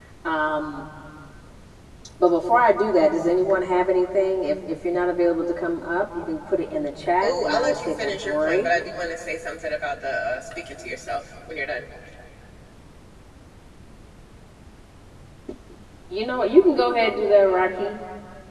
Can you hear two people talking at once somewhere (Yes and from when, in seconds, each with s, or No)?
Yes, from 7.2 s